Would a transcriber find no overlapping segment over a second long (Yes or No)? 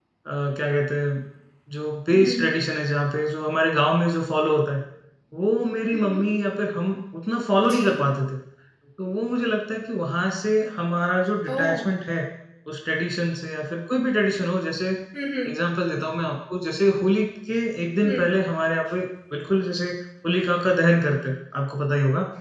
Yes